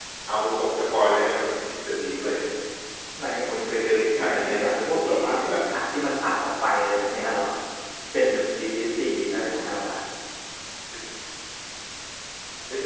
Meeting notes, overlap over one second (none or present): present